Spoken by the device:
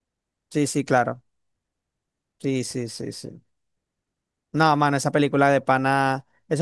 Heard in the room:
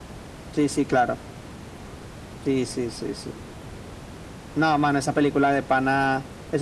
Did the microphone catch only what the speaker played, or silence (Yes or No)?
Yes